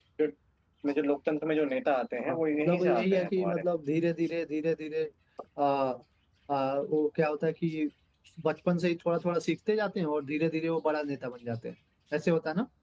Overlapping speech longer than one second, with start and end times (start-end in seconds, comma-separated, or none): 2.3-3.6